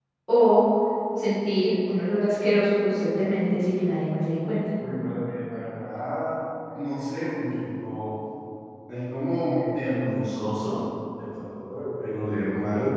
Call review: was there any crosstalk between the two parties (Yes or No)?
No